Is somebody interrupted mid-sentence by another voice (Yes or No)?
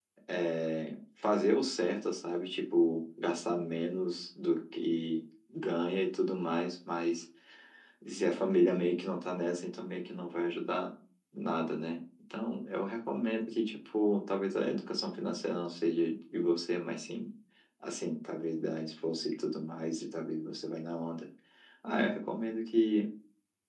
No